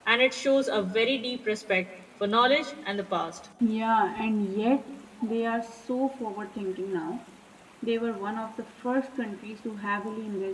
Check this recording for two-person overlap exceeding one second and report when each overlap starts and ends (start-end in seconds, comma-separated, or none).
none